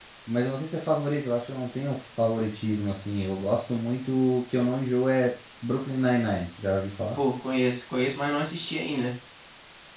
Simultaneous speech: No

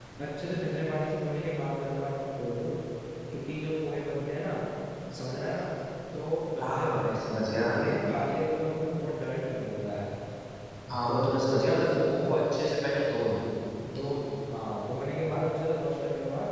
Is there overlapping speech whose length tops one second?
Yes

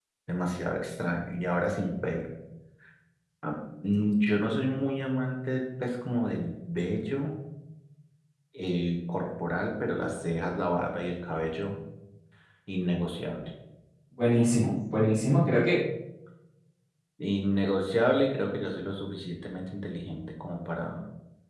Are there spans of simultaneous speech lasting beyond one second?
No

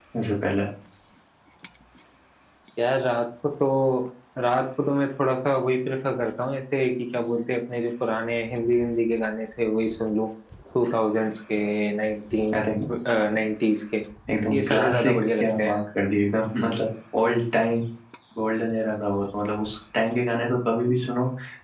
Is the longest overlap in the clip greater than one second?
Yes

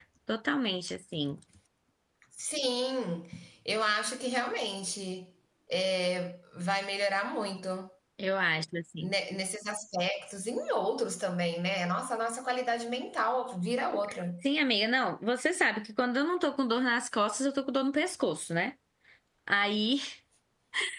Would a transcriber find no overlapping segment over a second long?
Yes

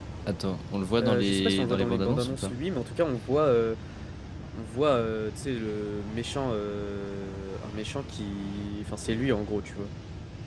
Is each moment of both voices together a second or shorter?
No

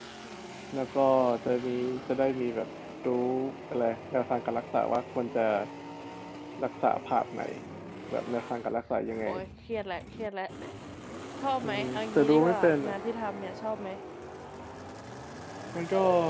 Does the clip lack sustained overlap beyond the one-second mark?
No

